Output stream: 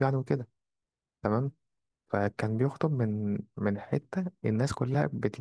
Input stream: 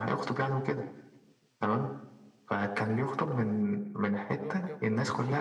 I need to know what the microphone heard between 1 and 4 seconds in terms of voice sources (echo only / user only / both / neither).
echo only